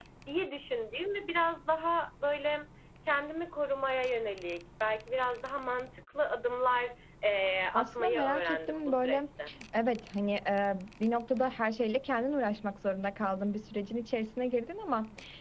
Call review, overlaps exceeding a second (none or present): present